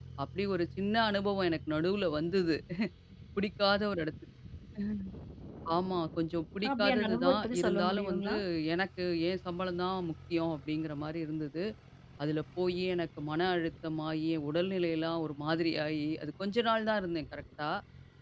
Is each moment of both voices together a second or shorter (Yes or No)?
No